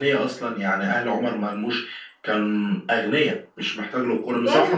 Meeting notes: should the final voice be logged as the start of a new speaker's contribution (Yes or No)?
Yes